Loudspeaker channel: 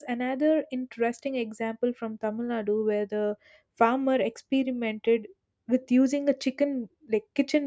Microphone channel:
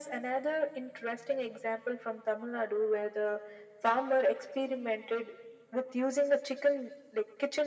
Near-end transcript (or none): none